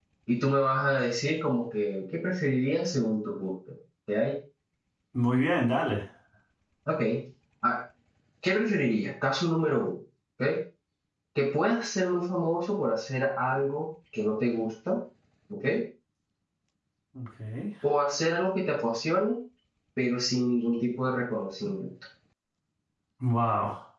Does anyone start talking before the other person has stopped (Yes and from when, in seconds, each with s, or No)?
No